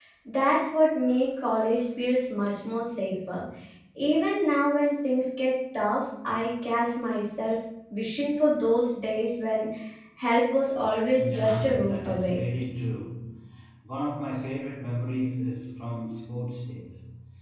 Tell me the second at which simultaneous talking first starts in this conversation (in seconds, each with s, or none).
11.2 s